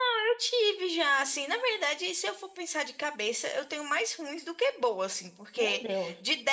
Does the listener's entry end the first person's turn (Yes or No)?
No